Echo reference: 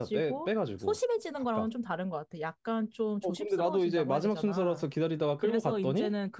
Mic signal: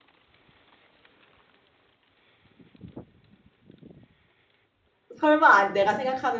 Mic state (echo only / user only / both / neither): user only